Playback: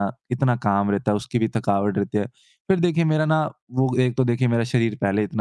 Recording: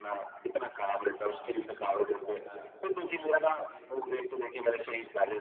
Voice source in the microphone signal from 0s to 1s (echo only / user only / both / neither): echo only